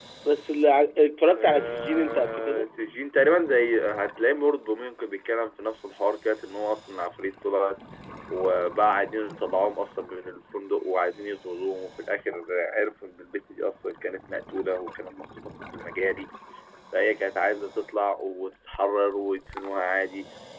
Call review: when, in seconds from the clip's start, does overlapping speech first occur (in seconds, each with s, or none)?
1.3 s